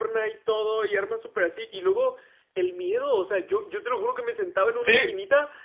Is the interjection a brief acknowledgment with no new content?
Yes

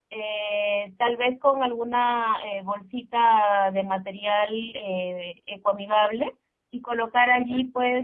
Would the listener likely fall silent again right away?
Yes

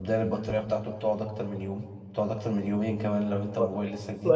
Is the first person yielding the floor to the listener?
Yes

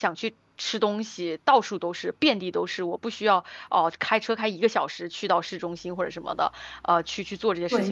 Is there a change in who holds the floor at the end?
Yes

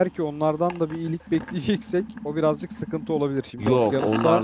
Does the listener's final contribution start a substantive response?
Yes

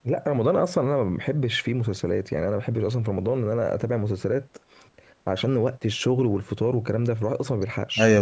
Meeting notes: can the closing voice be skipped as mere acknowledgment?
No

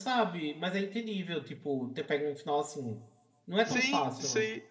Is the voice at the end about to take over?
Yes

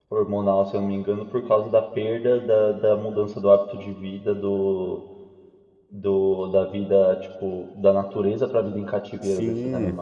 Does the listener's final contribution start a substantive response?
Yes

